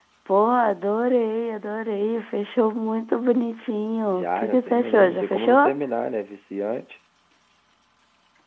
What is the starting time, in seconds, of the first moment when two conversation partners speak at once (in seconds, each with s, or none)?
4.1 s